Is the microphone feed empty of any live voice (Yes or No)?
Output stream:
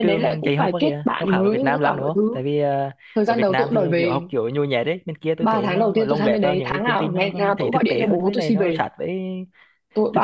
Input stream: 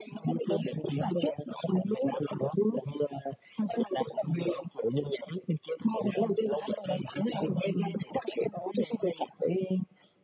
Yes